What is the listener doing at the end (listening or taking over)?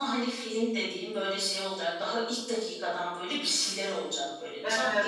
listening